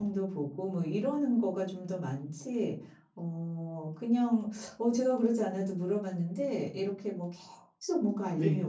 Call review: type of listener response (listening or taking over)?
listening